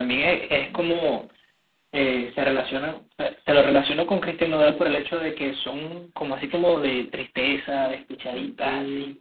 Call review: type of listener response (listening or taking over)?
taking over